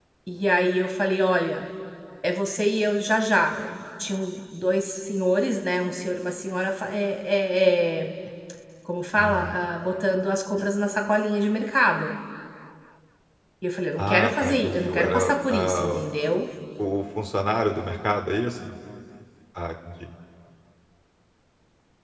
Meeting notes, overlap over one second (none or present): present